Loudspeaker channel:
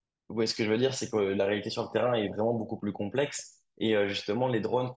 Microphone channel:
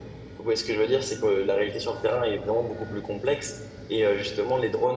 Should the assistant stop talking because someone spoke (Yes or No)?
No